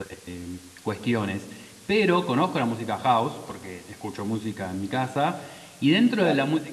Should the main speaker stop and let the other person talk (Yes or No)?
No